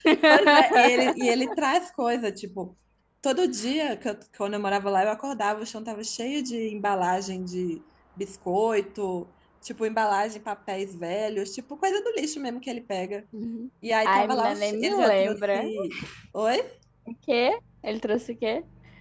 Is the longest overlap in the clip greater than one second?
Yes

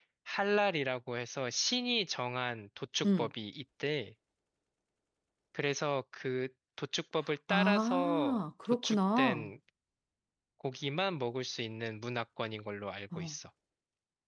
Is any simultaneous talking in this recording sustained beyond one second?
Yes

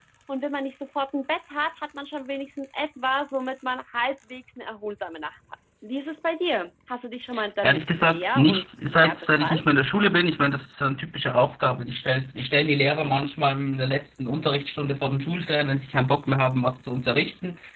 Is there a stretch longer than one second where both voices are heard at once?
Yes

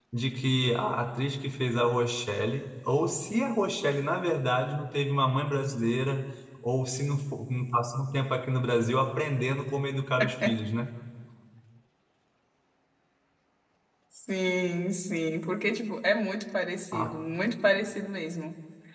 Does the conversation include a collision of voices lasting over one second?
No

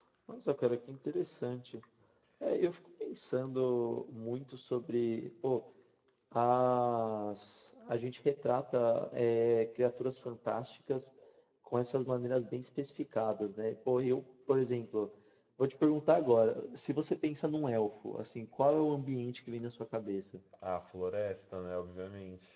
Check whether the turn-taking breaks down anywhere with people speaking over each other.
No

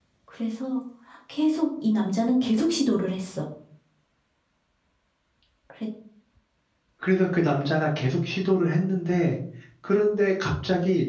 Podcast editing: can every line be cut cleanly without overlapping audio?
Yes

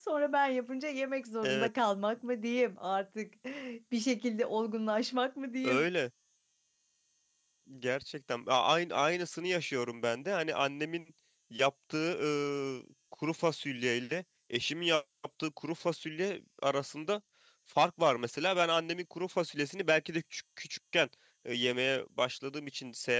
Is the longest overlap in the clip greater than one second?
No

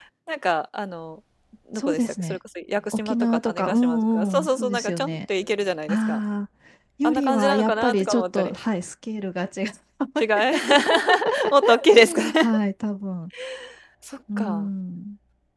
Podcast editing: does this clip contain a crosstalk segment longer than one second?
Yes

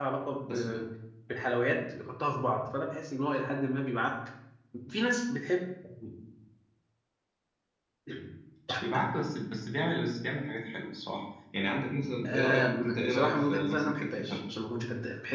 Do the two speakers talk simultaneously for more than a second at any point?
Yes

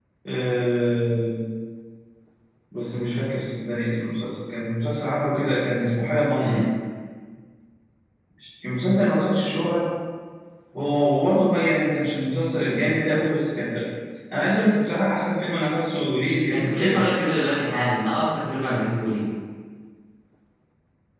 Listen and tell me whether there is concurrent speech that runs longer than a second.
No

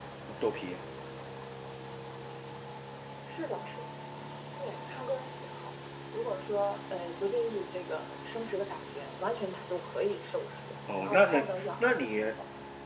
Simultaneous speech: Yes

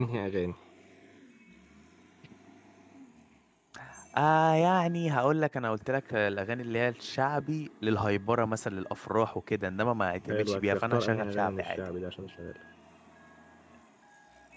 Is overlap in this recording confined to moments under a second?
No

